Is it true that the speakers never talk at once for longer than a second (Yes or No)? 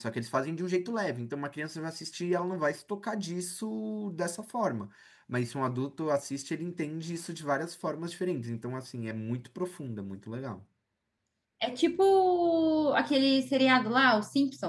Yes